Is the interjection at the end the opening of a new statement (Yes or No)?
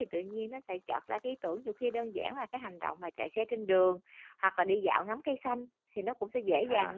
No